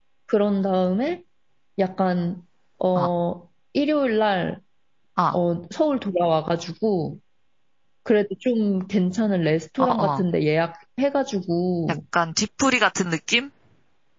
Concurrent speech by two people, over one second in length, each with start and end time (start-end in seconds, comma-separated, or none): none